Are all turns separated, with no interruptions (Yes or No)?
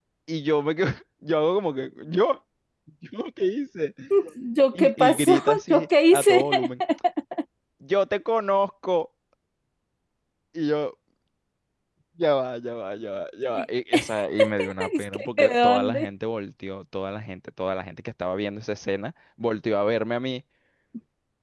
No